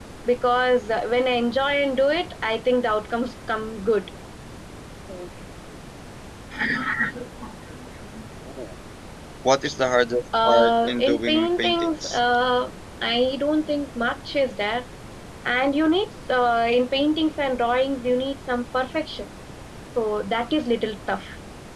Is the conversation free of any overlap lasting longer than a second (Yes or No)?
No